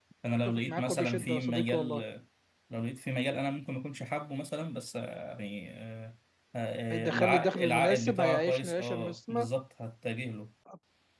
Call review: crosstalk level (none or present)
present